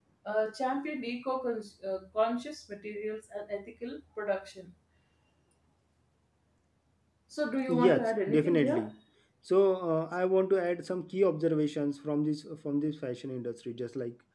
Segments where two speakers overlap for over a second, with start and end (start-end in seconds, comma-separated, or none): 7.7-8.9